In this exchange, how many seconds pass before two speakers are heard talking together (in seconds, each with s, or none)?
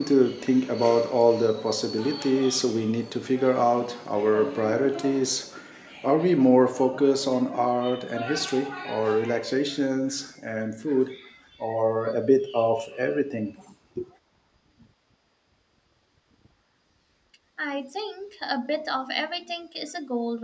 none